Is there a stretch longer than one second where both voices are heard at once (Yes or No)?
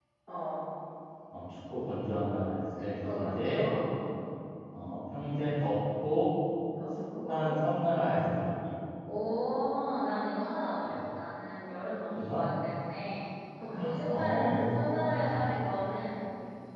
Yes